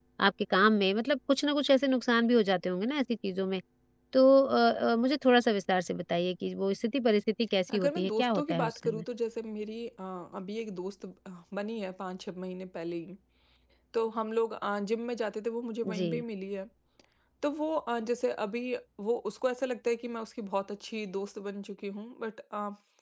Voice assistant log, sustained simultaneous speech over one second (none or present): present